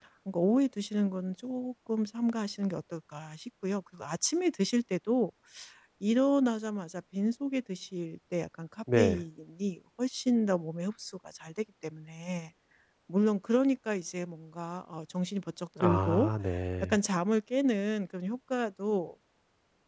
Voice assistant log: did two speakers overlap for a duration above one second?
No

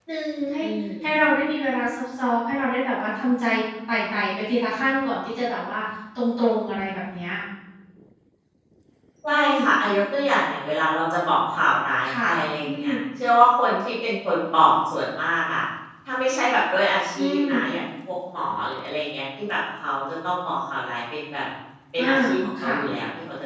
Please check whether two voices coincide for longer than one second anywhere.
No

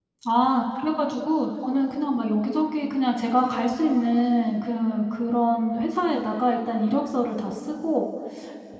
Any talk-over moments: No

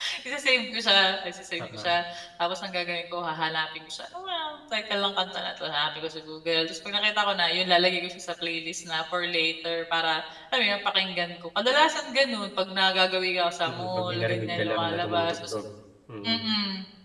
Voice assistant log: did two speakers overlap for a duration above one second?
Yes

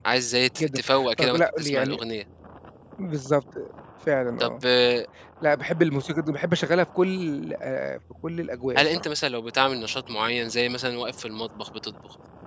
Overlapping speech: Yes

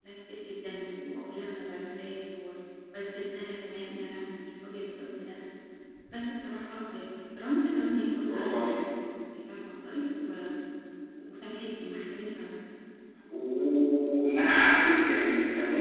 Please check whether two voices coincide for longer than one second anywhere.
No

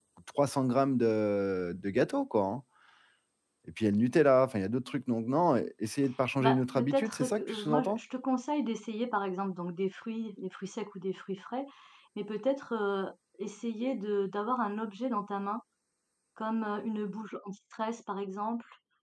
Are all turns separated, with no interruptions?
No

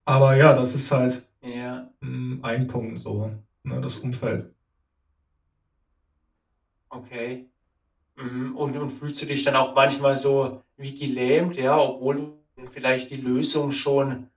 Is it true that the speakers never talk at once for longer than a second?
Yes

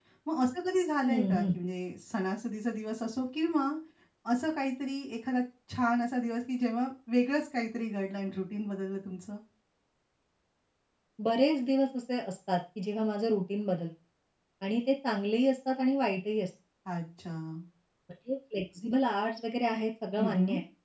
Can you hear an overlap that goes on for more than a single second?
No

